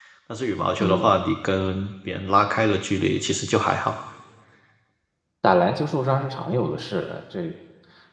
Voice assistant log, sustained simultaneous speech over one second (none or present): none